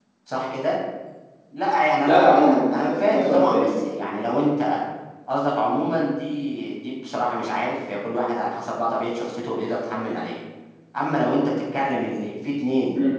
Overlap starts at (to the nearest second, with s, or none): 2 s